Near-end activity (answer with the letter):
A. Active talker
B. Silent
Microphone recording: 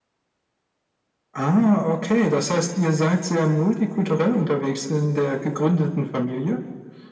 B